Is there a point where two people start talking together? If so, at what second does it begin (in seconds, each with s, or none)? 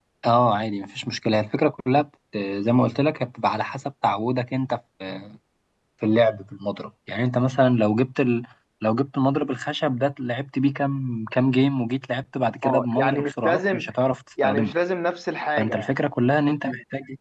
12.6 s